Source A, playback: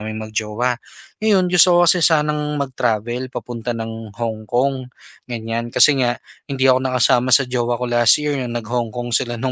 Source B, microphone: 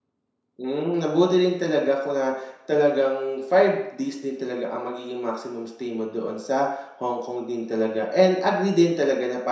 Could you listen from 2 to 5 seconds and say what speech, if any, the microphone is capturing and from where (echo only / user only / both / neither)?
user only